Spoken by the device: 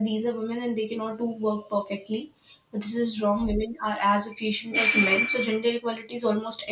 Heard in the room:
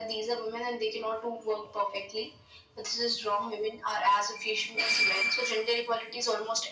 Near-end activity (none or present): none